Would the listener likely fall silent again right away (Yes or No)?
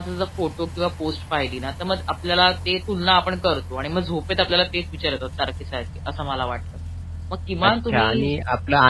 No